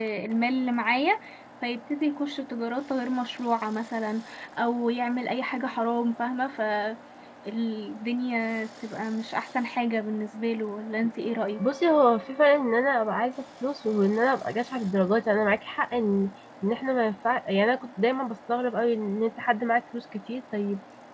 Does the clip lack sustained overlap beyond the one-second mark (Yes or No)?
Yes